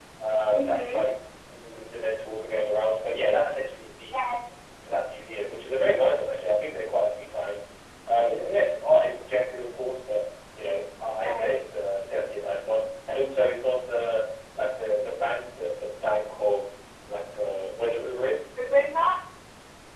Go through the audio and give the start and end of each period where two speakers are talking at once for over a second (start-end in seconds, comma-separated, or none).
none